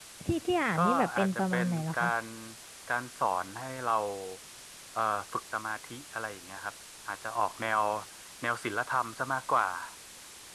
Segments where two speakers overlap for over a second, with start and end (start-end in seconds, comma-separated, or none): 0.8-2.1